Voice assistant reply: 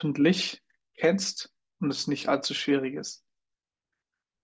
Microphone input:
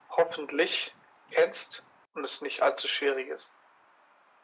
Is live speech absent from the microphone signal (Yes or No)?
Yes